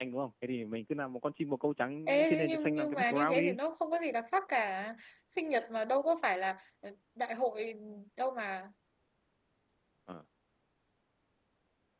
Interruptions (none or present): present